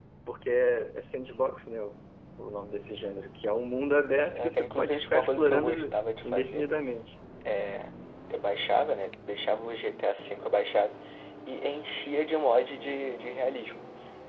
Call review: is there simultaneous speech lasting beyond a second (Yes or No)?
Yes